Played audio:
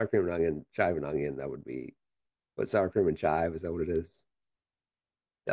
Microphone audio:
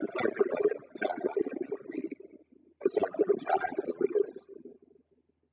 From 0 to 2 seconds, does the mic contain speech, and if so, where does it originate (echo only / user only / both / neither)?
echo only